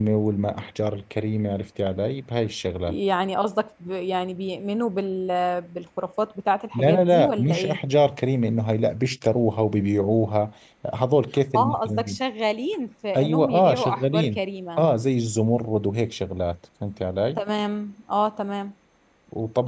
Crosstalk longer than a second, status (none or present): present